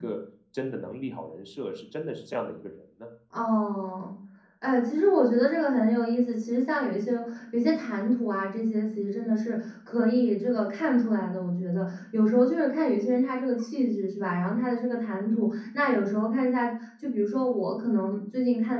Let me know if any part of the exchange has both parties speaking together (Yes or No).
No